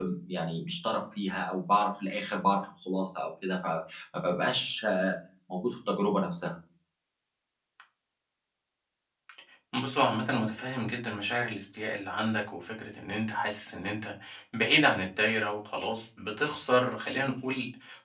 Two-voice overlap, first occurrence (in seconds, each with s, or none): none